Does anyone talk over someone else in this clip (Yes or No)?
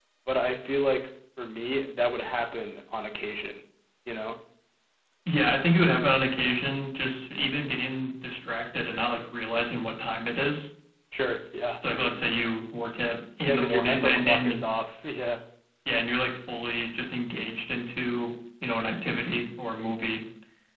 Yes